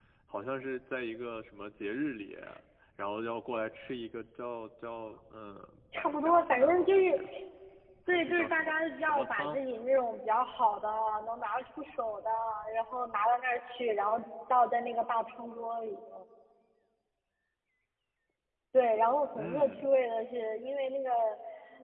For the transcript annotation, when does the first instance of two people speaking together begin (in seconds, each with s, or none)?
6.0 s